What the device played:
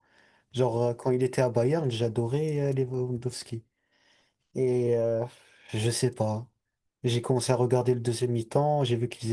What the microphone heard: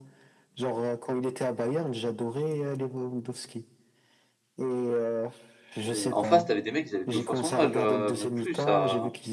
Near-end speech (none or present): present